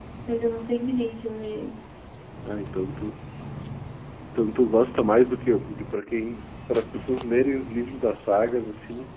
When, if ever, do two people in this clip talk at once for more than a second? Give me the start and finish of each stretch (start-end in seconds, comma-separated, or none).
none